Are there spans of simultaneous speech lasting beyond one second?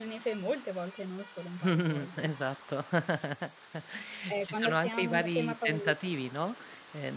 Yes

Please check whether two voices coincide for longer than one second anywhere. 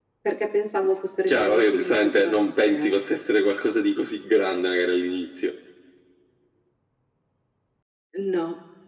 Yes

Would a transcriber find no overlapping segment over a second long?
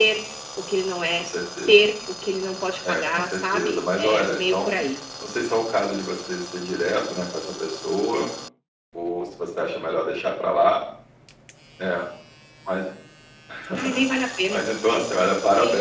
No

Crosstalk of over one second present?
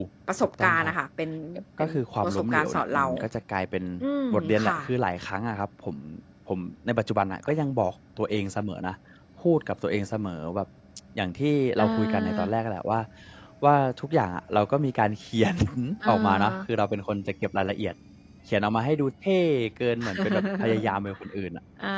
Yes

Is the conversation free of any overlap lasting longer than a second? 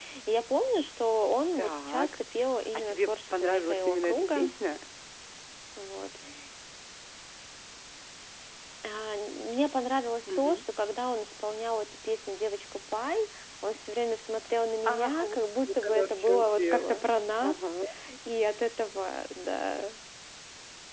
No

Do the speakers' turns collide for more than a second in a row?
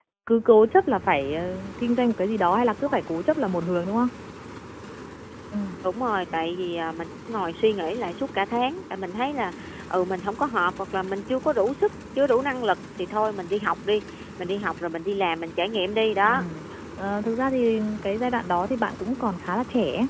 No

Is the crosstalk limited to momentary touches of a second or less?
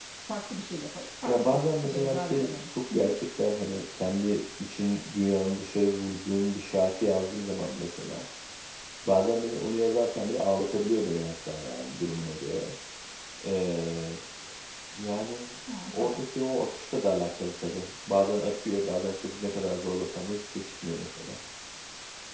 No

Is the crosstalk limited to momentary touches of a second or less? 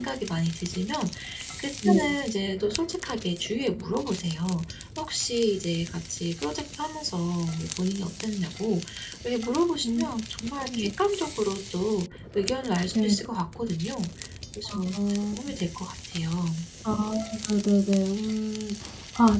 Yes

